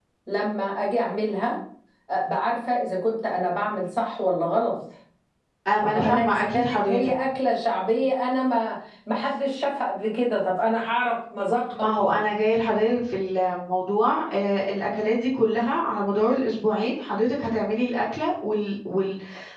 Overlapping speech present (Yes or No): Yes